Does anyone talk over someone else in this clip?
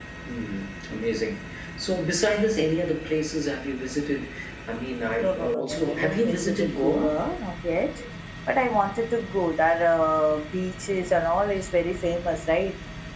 Yes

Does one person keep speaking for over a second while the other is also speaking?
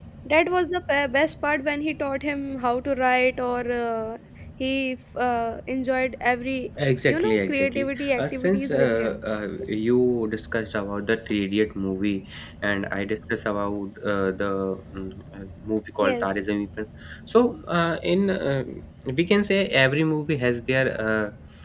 Yes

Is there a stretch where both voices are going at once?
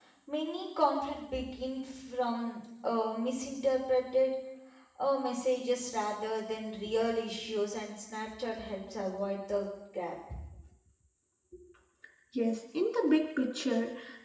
No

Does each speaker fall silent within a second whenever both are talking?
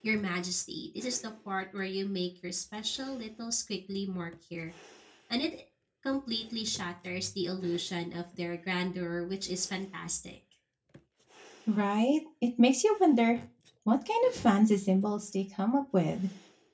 Yes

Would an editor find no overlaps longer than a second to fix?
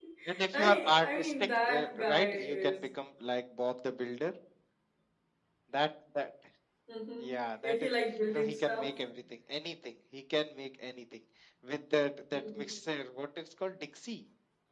No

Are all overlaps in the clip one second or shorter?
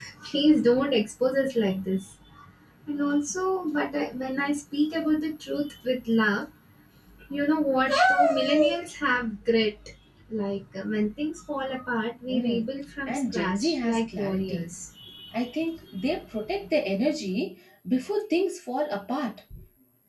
No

